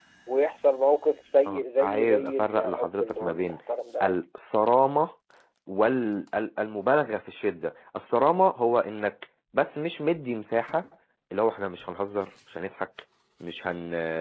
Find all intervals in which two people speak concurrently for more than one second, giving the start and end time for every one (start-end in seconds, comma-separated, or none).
1.5-3.6